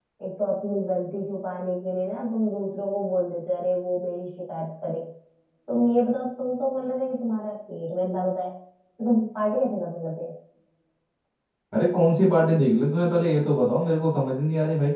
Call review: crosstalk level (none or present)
none